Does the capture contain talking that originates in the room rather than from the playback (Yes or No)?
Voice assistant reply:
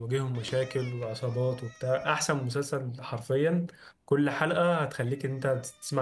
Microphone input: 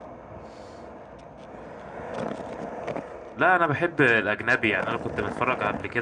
Yes